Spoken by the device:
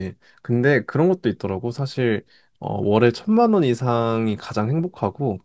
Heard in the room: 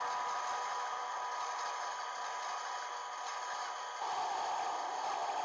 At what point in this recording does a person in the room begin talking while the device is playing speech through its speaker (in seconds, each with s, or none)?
none